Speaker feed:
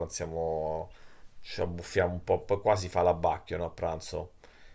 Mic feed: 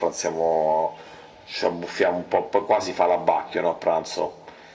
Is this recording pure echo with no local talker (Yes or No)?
Yes